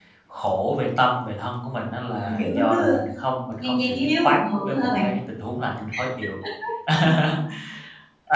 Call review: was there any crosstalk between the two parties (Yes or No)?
Yes